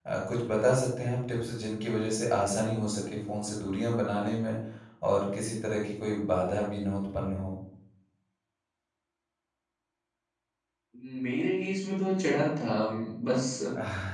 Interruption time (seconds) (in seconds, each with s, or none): none